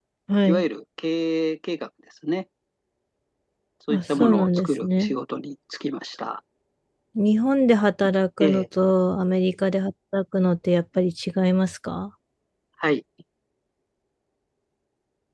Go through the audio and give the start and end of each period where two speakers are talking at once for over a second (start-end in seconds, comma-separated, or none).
3.9-5.1